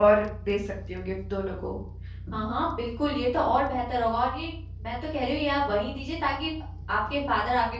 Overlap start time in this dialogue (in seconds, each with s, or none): none